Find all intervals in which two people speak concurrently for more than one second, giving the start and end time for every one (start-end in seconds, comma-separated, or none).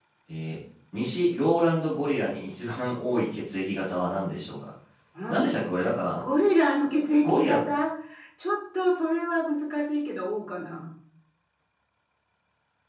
none